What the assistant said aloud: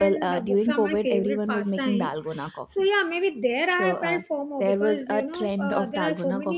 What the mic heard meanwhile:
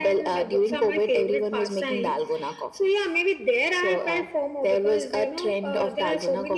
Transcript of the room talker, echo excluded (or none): none